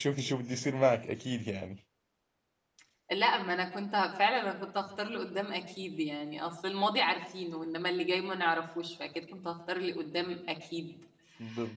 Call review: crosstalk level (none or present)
none